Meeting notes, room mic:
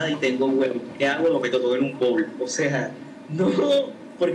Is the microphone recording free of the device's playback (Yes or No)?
No